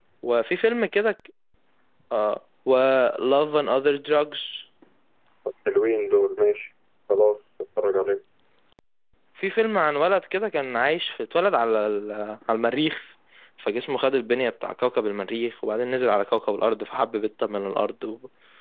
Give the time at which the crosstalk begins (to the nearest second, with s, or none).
none